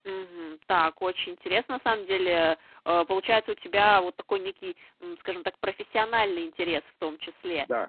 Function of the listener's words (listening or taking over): listening